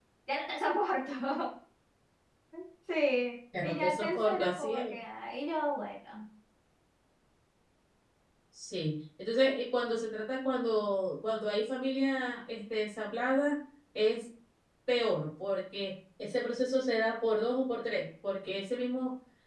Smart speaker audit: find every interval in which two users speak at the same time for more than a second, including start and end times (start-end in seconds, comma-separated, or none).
3.6-4.8